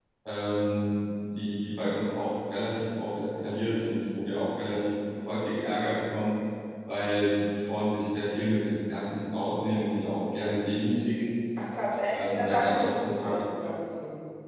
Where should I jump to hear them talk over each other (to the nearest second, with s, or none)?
12 s